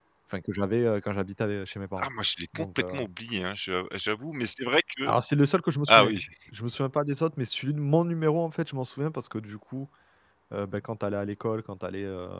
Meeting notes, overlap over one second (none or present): none